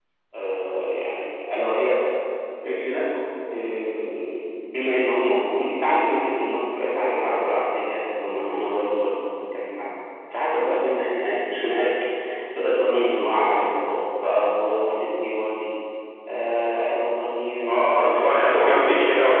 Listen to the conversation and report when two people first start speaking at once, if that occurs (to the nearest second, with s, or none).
18 s